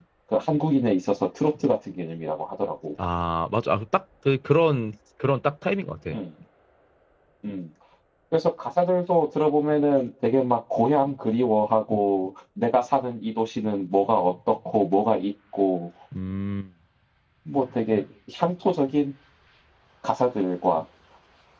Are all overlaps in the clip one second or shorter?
Yes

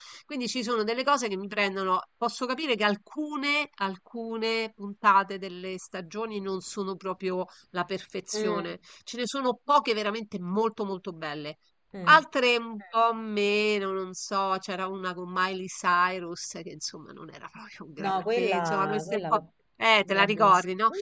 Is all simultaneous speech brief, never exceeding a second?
No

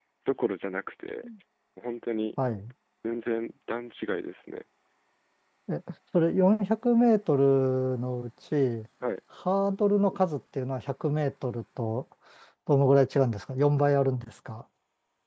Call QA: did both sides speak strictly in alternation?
Yes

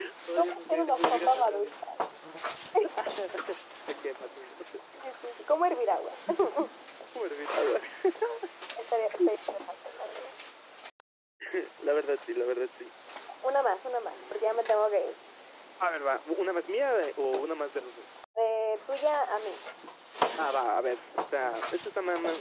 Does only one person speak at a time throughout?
No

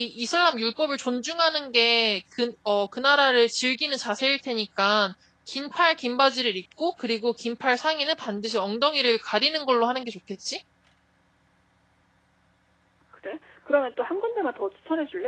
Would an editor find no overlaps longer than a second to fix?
Yes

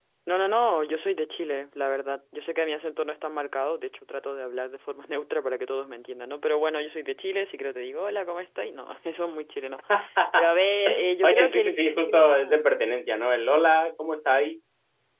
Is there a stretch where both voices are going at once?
Yes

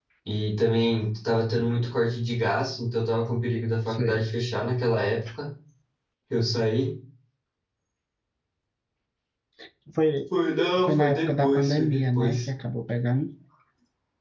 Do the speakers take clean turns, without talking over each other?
No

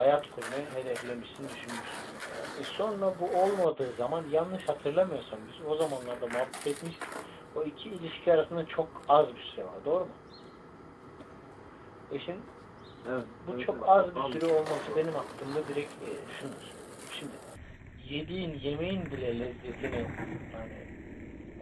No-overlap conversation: No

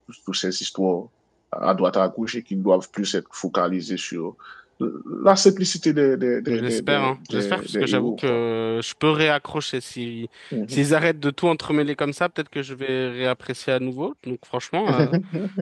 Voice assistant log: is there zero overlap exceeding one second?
No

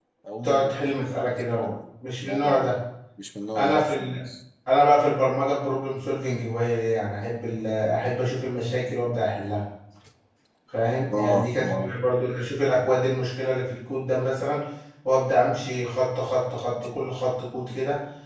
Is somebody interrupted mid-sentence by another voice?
Yes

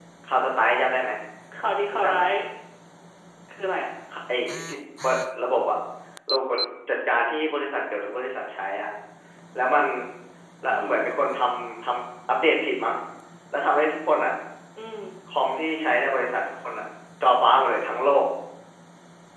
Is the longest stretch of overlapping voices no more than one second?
Yes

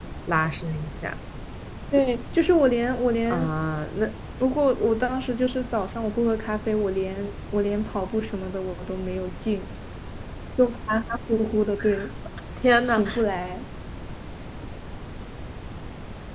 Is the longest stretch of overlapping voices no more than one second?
Yes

